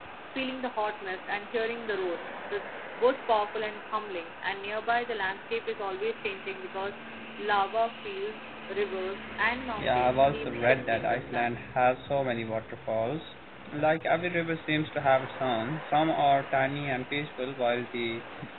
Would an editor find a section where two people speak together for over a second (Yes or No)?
Yes